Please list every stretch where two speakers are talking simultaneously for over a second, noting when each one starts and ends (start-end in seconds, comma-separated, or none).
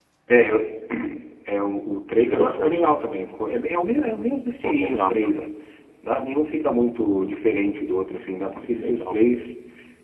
none